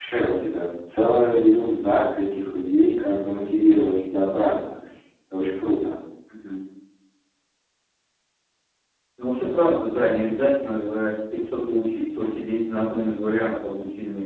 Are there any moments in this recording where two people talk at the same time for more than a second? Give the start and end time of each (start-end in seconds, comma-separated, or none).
none